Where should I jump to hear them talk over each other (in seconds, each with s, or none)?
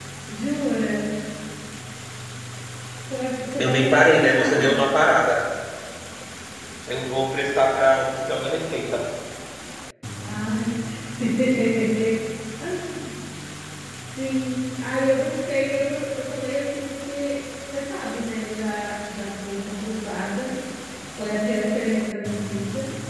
3.6 s